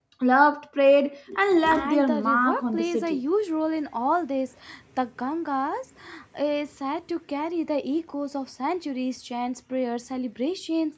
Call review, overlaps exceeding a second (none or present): present